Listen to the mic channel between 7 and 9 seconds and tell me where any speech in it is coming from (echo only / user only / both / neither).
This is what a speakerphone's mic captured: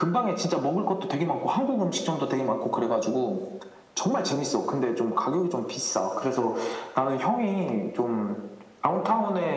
echo only